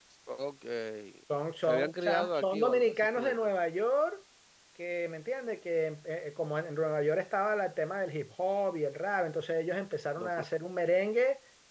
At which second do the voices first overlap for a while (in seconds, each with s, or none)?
1.7 s